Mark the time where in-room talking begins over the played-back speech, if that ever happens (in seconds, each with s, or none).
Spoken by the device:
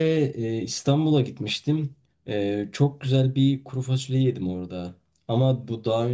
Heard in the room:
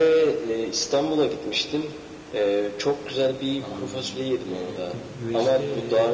3.6 s